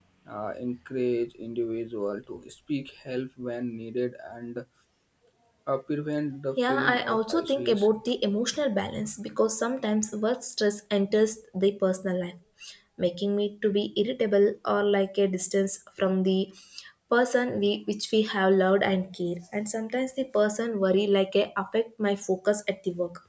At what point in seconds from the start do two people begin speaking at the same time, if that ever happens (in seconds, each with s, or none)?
6.6 s